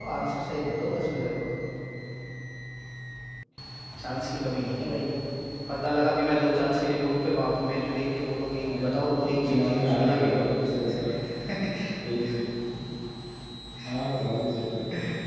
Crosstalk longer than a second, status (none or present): present